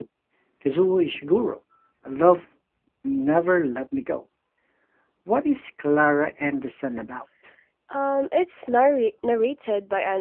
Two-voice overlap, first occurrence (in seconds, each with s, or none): none